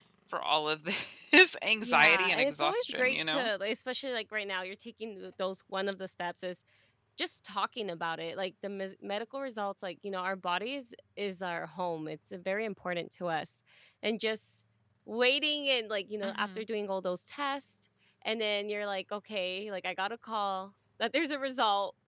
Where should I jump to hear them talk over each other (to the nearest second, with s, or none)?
2 s